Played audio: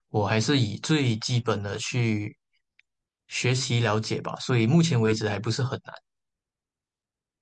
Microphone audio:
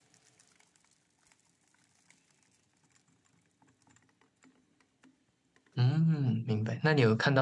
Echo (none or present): none